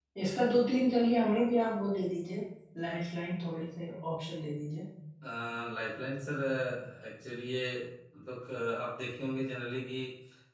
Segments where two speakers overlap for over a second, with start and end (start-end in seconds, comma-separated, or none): none